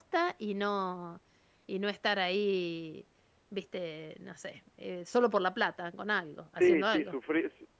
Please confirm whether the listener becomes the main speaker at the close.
Yes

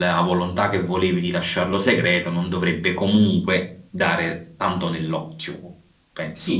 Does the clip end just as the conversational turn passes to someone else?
Yes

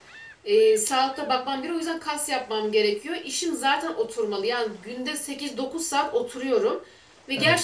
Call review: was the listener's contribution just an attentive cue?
Yes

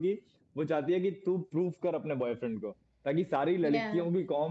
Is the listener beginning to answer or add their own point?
No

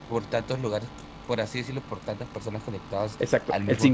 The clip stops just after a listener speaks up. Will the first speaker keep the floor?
No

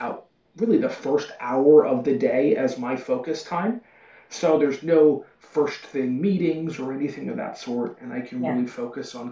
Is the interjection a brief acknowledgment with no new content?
Yes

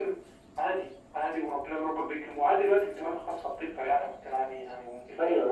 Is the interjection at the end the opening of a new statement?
Yes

